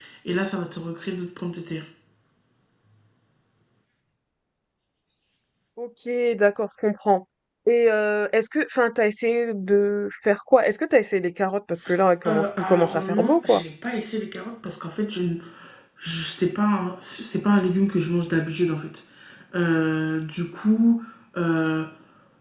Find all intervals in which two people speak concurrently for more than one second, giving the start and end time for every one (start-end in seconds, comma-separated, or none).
12.2-13.6